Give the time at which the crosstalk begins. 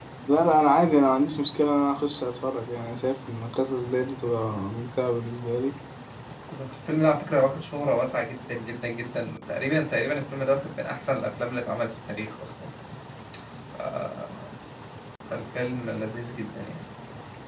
none

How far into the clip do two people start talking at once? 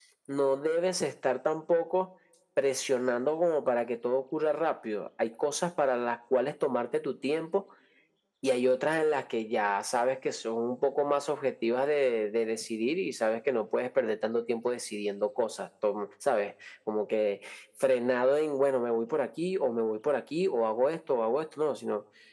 none

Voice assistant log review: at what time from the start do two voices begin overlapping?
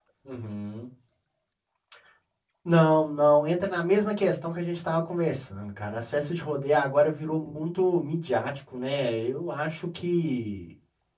none

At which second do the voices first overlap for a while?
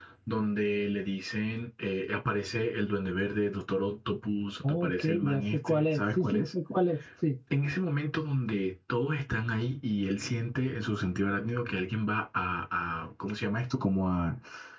4.6 s

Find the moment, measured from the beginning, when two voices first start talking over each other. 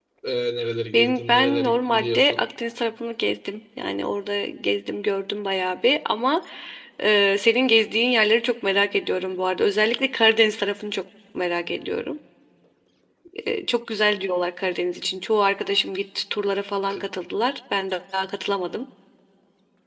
0.9 s

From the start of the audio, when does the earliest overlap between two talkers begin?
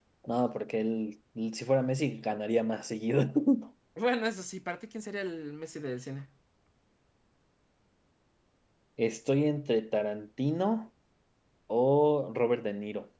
none

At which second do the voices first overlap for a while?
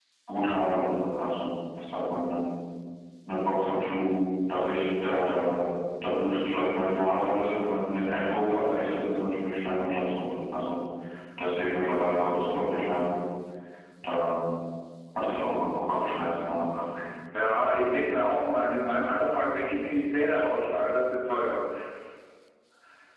none

